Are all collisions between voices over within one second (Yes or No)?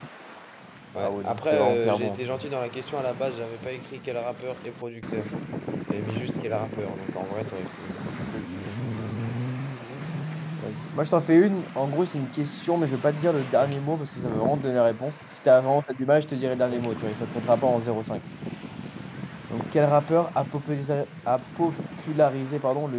No